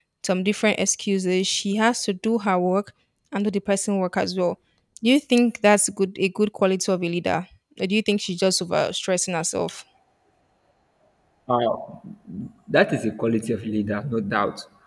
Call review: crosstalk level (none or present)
none